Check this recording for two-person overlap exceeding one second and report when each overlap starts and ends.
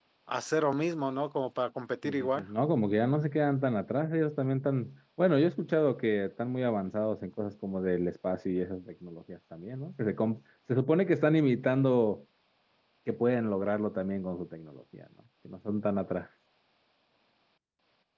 none

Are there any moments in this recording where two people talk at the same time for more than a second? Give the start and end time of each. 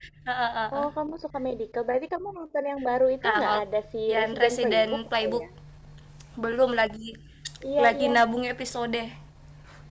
4.1-5.4

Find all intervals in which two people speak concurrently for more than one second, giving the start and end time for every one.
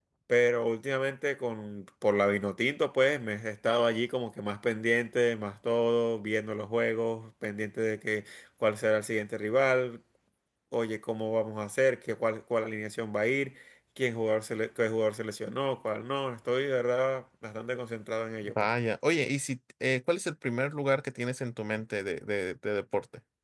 none

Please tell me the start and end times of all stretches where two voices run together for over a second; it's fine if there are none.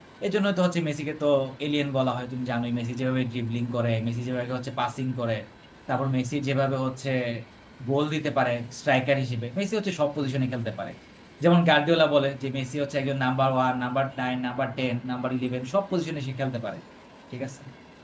none

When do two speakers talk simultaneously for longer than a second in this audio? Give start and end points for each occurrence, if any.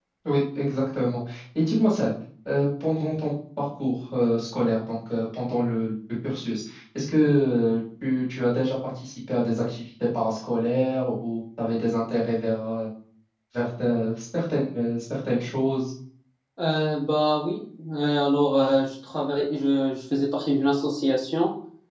none

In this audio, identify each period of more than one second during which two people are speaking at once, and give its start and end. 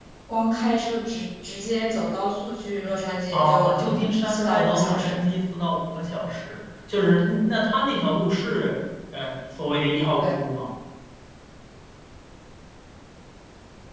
3.3-5.2

